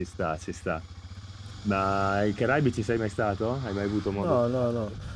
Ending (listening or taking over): taking over